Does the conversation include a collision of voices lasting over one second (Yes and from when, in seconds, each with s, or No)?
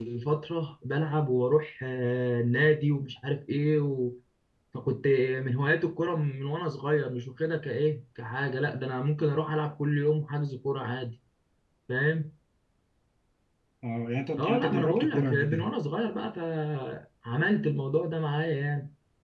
Yes, from 14.4 s